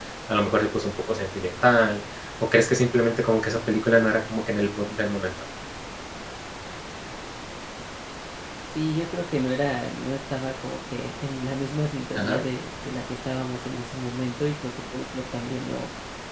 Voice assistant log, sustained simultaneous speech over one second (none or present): none